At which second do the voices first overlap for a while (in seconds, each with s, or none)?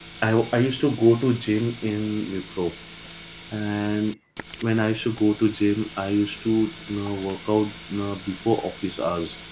none